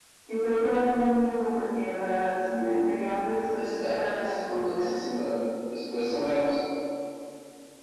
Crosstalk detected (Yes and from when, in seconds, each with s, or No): Yes, from 3.5 s